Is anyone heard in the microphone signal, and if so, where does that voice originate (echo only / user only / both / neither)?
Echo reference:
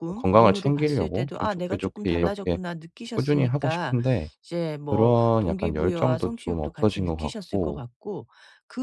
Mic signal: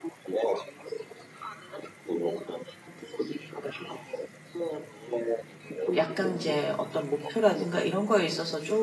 both